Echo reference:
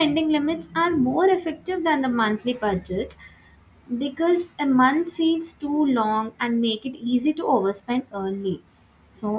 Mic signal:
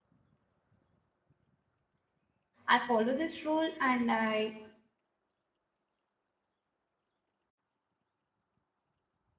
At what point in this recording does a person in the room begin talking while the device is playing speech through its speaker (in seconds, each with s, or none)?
2.7 s